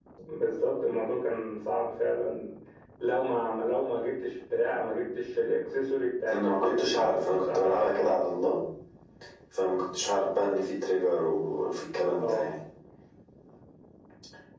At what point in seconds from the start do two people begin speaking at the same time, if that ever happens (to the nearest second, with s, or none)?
6 s